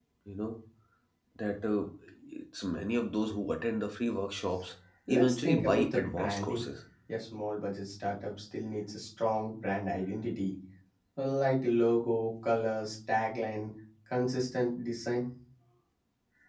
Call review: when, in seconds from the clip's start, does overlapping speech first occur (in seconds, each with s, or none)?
5.1 s